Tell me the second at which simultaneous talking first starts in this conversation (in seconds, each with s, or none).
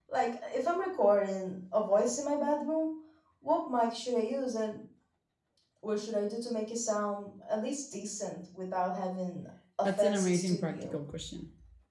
9.8 s